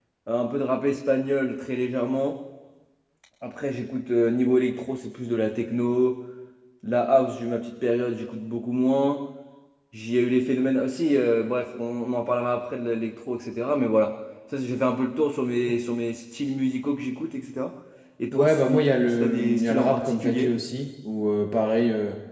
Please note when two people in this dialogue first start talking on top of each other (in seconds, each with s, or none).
18.3 s